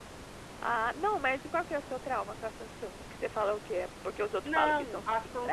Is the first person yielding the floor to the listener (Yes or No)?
Yes